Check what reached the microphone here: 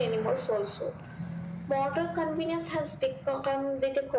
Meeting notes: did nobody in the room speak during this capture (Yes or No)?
Yes